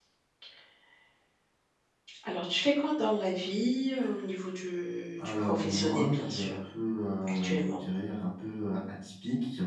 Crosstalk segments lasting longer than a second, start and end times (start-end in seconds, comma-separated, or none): 5.2-6.6